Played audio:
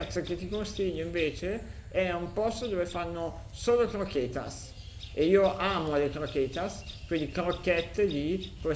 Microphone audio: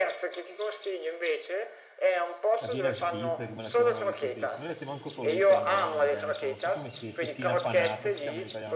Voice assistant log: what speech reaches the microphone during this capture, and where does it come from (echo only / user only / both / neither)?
both